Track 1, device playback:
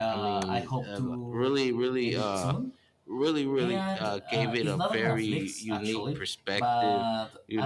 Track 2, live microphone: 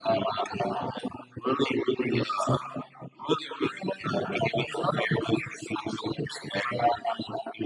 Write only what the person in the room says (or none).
none